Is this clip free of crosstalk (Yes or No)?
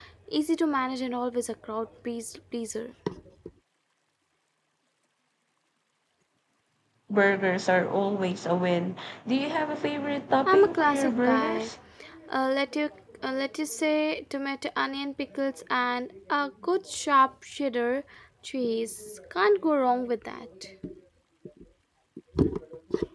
No